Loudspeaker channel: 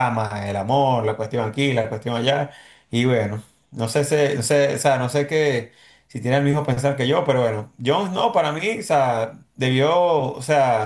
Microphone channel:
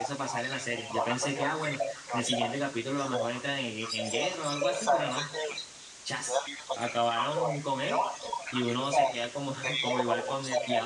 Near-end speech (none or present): present